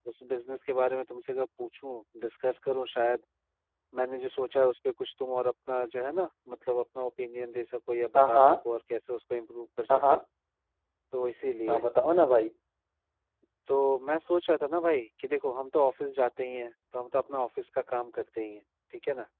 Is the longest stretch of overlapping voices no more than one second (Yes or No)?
Yes